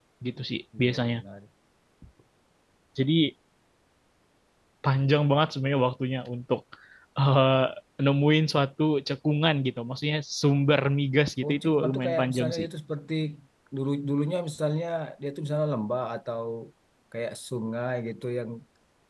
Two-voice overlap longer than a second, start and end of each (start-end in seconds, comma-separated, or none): 11.4-12.6